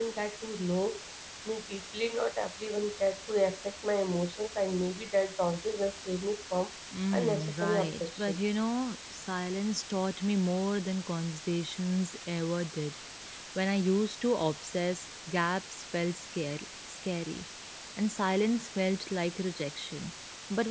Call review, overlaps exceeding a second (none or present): present